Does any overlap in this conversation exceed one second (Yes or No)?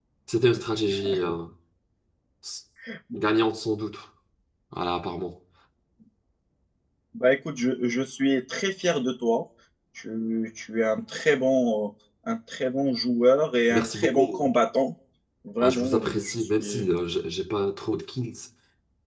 Yes